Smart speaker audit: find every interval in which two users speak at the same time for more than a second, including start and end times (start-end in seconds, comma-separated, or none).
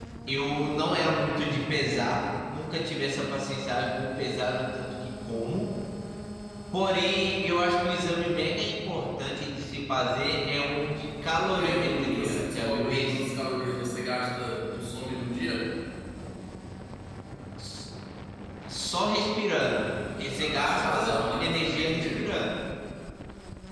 11.6-13.3, 20.4-22.3